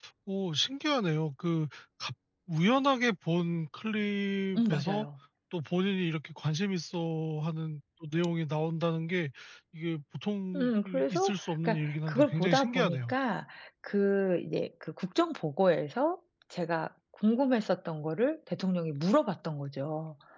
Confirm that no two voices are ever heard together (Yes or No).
No